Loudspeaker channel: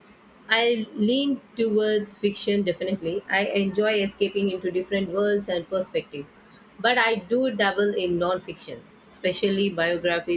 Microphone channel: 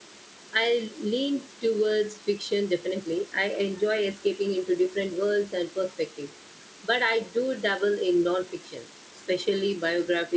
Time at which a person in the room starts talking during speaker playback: none

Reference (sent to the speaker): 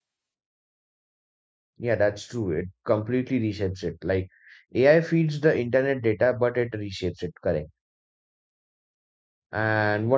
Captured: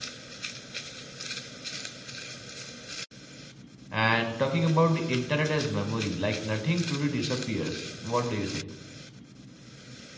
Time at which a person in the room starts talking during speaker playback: 4 s

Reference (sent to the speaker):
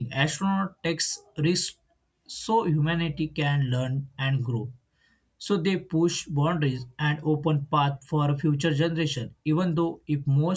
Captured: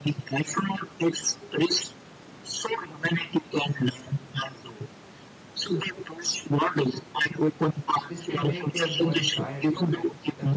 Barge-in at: 8 s

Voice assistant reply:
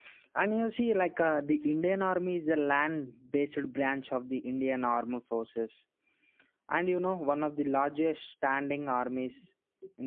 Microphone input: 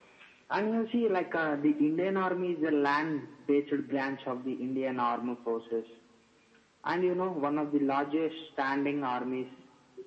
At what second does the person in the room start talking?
none

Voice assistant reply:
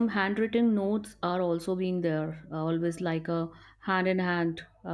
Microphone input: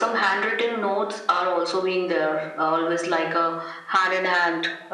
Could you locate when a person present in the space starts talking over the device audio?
none

